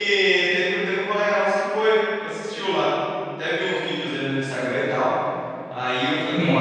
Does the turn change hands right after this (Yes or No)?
No